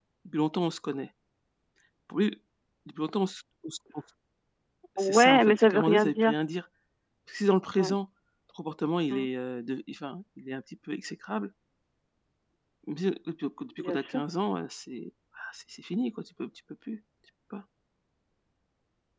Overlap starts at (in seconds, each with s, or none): 5.0 s